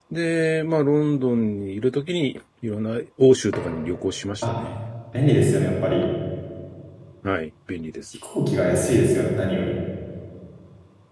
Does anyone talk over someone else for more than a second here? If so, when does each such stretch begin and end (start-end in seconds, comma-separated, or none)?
none